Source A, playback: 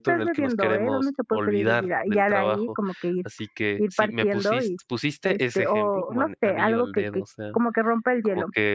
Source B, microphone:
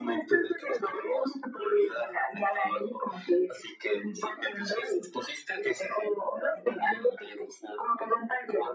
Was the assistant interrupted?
No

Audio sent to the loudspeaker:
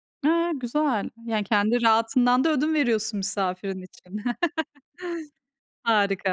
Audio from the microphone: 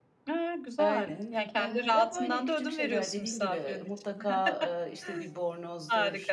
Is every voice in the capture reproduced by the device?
No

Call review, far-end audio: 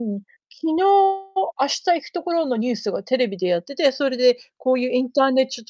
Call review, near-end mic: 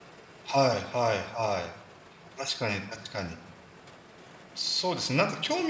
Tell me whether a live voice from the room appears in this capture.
Yes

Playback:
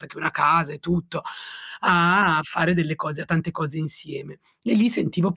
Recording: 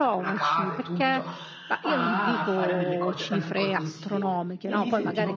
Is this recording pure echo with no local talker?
No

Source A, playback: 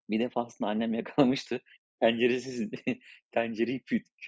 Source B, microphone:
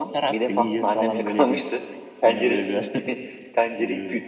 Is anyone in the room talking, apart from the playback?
Yes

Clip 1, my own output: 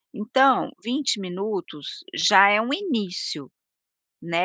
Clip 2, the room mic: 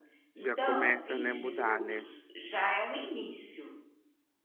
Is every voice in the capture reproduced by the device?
No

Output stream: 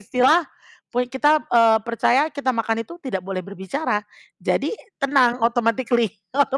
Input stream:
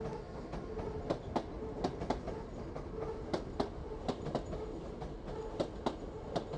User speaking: No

